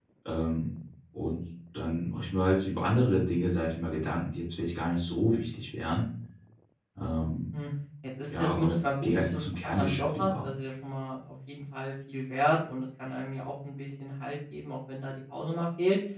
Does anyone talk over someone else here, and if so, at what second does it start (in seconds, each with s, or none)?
8.3 s